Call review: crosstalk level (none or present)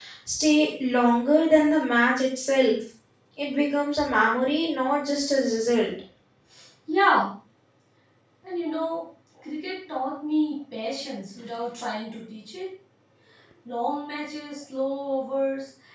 none